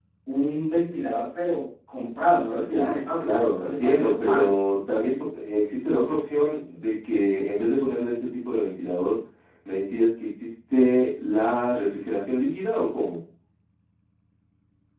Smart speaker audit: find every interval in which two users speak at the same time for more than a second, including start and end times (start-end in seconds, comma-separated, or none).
2.7-4.5